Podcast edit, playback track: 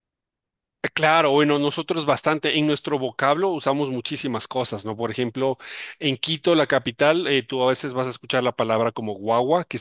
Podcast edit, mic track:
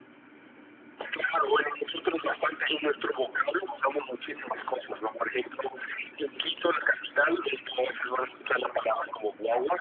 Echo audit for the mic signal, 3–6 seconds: echo only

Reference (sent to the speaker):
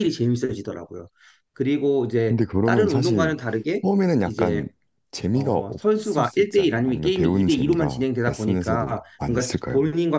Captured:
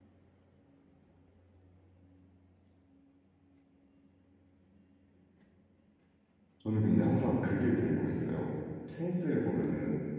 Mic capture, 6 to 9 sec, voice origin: user only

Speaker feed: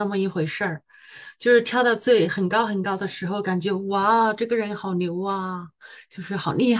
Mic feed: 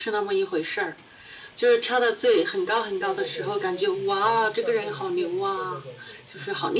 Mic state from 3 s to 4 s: both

